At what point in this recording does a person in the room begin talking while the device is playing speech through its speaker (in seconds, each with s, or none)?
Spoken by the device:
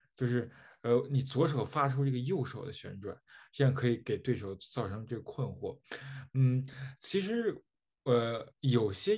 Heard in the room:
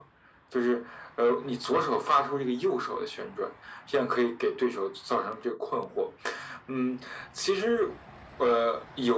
none